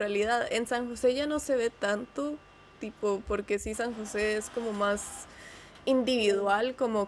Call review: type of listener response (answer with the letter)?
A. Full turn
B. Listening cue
B